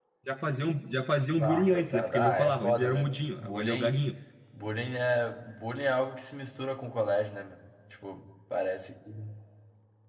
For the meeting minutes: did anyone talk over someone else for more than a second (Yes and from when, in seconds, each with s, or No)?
Yes, from 1.3 s